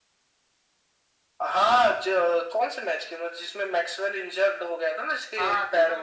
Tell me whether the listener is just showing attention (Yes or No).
No